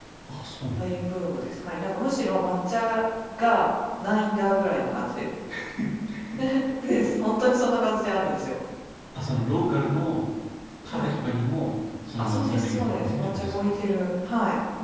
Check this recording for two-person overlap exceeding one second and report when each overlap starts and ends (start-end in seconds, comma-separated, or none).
12.2-13.7